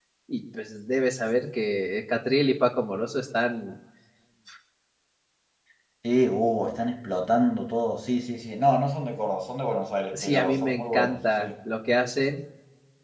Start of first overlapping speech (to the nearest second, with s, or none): 10 s